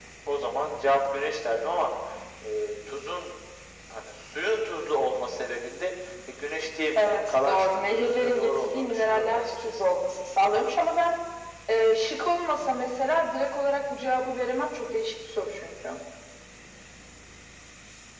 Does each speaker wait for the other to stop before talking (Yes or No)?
No